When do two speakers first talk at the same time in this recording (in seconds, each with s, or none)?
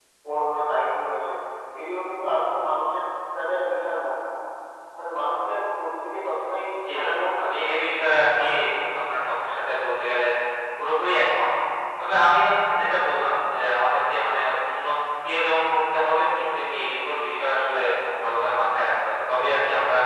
6.9 s